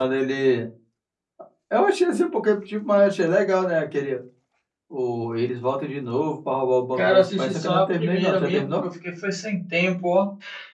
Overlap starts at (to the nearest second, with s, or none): 7 s